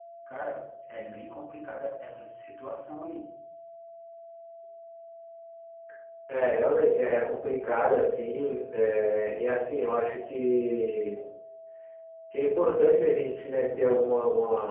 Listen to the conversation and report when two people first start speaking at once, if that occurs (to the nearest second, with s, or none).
none